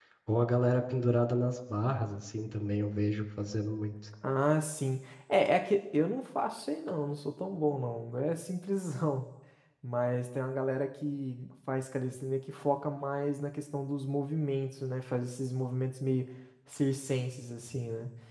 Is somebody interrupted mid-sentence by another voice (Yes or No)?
No